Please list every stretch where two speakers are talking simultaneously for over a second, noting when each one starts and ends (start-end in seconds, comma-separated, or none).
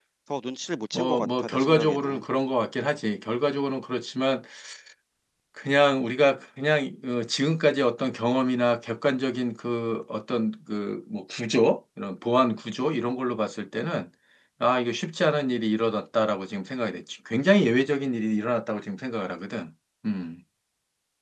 0.9-2.2